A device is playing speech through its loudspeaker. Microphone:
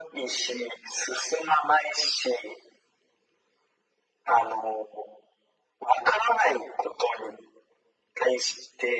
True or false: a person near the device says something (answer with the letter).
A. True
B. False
B